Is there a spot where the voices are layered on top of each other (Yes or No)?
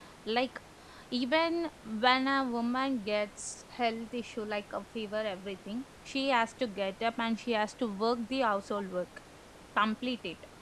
No